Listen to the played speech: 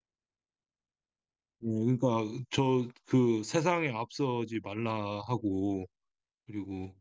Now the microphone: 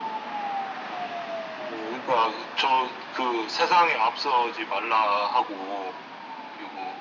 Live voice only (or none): none